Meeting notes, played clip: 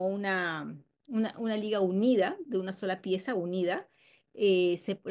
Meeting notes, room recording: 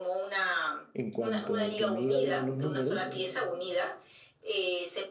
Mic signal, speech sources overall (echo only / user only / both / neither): both